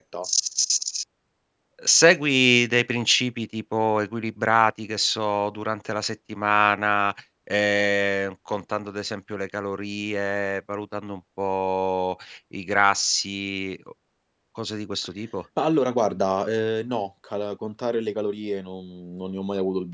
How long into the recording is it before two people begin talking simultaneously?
none

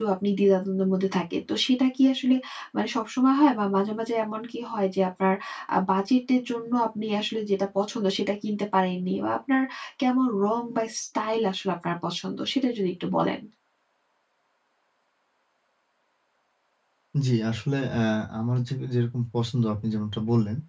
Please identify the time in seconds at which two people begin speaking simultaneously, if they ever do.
none

